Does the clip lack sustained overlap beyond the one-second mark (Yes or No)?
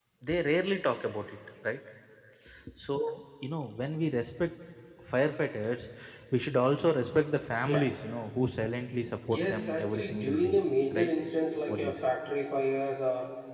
No